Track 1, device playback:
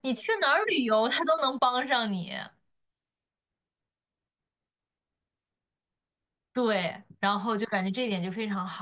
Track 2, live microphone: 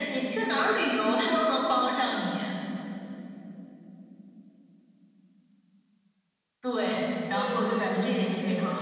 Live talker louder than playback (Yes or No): No